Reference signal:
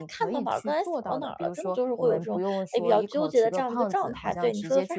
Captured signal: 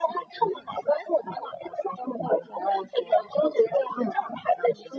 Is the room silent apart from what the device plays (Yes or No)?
Yes